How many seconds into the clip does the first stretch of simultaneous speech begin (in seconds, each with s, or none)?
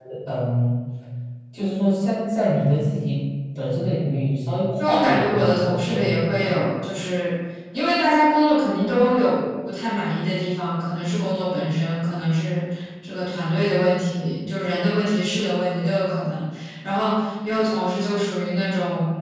4.8 s